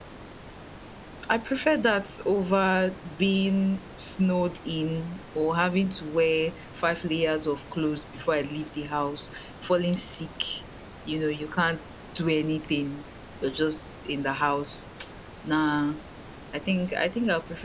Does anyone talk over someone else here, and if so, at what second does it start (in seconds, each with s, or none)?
none